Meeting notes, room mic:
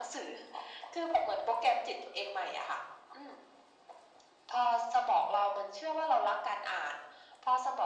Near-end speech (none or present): none